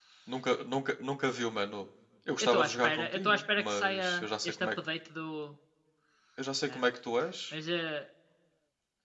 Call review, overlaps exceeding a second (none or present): present